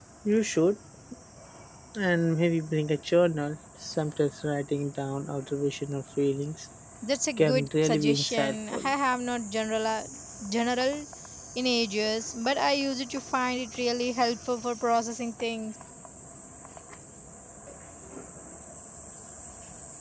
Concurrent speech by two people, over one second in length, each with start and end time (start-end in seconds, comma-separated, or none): 7.4-8.9